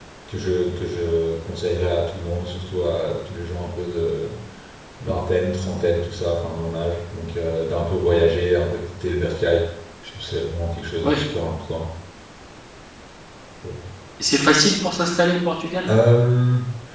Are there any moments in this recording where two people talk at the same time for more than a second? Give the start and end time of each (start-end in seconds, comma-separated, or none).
none